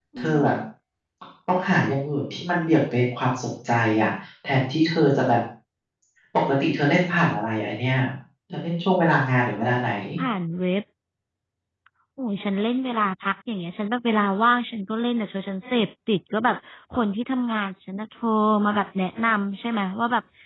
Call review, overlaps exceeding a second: none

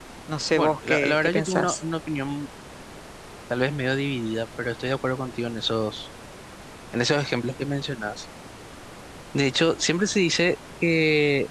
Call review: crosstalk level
present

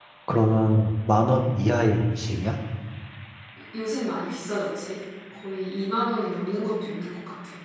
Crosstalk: none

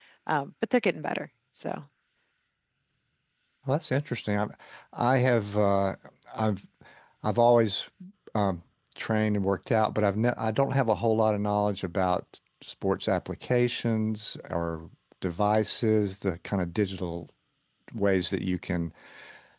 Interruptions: none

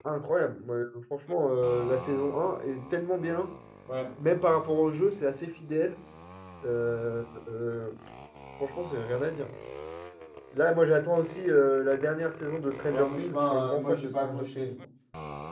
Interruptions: present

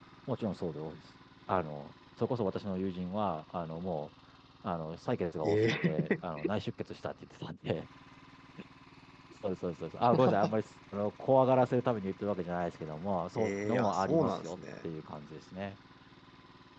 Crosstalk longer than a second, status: present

